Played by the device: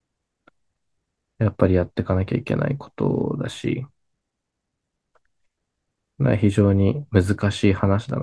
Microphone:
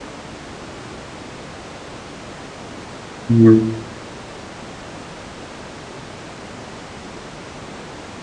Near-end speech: present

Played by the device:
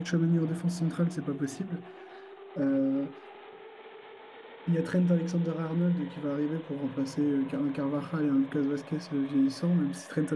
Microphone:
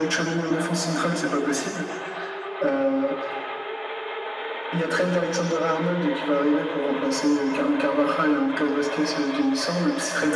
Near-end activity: none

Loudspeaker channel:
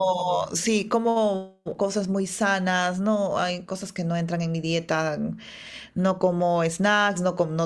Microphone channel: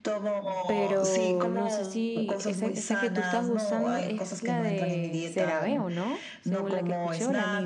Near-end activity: present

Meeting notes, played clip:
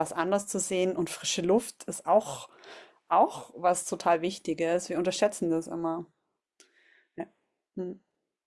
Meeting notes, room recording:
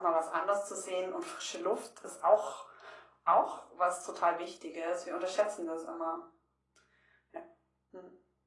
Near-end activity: none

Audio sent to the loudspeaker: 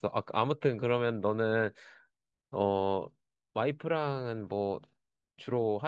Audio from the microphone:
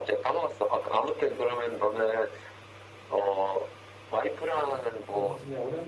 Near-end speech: present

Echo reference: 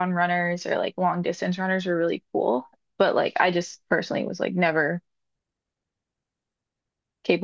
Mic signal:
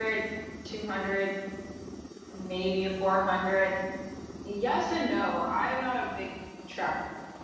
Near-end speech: present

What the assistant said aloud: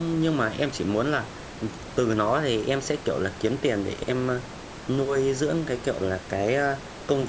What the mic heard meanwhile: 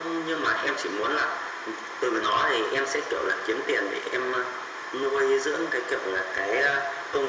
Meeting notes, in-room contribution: none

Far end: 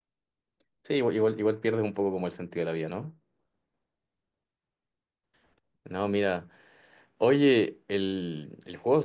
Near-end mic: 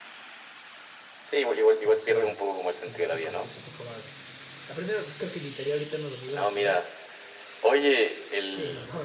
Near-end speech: present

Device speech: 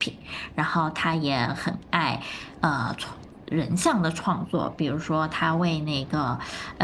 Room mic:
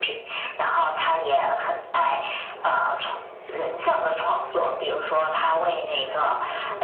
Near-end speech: present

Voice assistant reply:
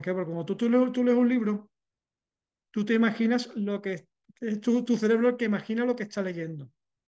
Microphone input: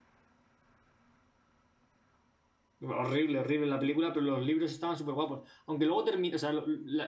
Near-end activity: present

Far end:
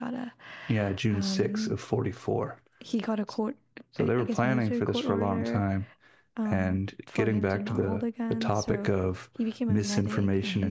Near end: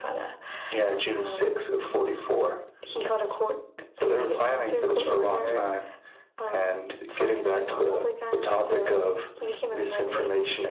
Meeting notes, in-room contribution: none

